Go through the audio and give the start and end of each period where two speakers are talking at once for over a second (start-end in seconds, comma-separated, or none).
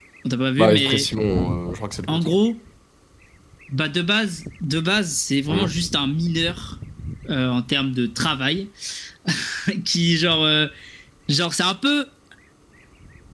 none